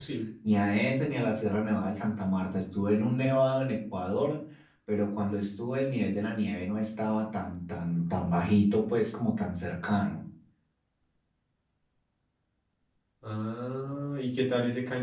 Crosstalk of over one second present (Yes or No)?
No